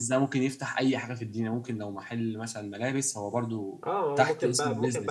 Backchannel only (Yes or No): No